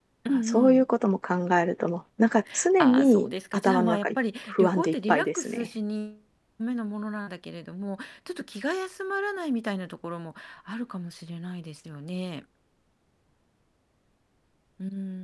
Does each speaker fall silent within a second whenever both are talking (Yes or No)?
No